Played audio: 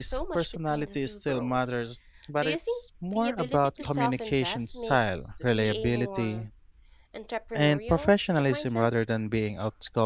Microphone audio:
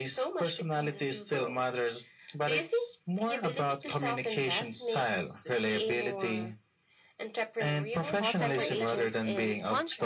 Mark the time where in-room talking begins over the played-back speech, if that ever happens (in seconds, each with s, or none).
8.2 s